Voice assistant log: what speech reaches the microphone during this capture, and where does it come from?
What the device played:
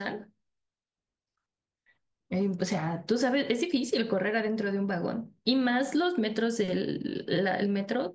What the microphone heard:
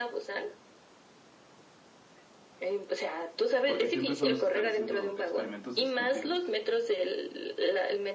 both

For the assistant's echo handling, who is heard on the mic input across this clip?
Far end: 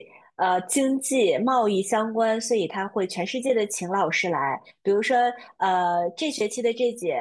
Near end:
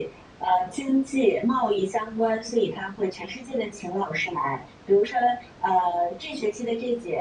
echo only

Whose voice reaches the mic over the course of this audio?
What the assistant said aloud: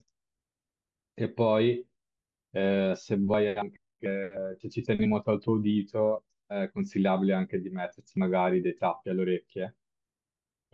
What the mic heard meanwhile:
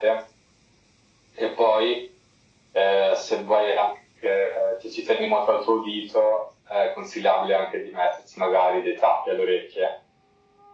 echo only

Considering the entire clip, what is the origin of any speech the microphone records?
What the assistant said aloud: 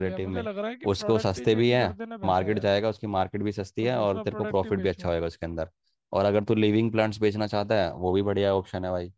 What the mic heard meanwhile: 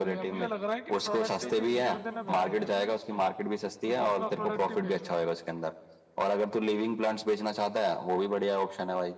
both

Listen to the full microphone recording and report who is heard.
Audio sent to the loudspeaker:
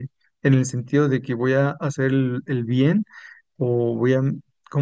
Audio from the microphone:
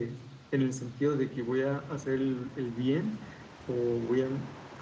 echo only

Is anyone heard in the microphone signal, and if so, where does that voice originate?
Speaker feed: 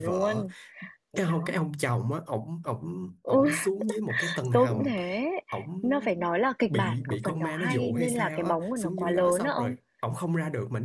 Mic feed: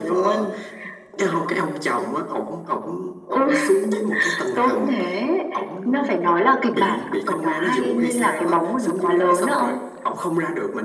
echo only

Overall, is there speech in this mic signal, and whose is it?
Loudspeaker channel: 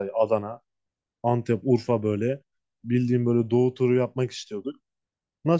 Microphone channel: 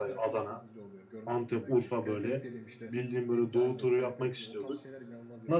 both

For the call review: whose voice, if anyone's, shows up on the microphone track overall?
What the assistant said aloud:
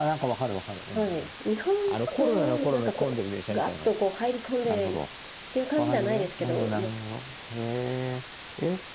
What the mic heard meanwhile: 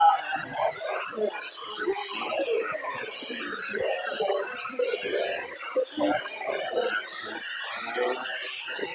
echo only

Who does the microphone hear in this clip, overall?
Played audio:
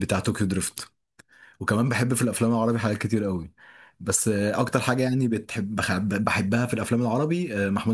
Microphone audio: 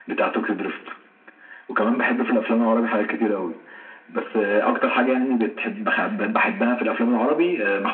echo only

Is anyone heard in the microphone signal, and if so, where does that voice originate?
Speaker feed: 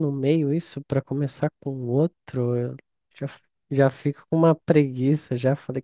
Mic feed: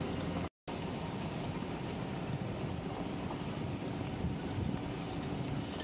neither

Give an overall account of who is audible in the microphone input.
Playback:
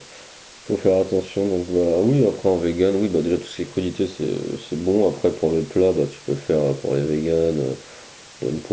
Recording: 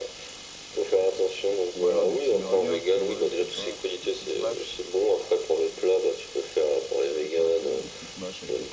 both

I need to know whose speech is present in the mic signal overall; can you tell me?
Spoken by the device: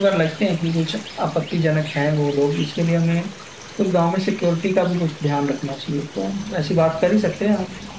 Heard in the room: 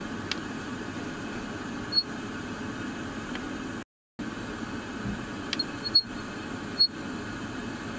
neither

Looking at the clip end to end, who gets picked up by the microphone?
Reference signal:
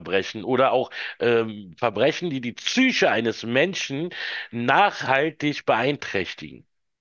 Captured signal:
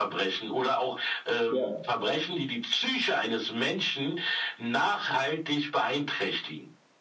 both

